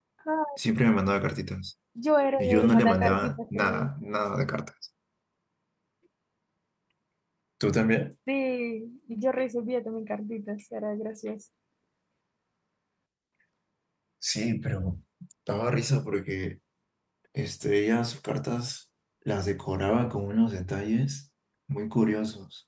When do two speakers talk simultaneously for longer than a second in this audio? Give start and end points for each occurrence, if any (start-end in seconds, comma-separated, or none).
2.4-3.9